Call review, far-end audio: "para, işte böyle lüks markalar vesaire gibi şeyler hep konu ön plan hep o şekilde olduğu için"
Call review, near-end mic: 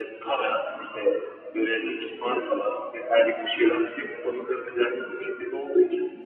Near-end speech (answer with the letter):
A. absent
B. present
A